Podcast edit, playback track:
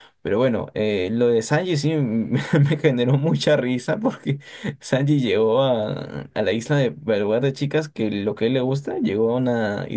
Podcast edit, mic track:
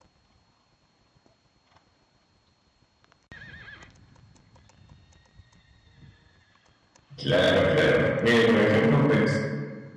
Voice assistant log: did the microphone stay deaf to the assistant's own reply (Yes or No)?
Yes